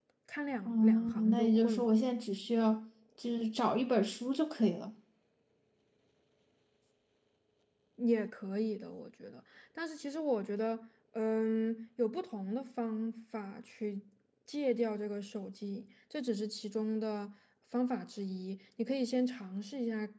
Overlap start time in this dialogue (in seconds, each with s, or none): 0.6 s